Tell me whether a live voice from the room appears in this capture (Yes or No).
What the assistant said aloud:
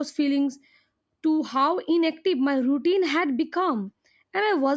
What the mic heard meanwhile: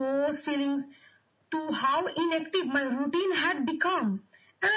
No